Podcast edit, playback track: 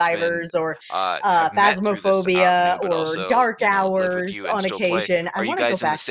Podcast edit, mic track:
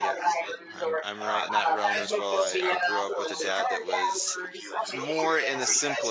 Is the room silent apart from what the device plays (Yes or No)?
No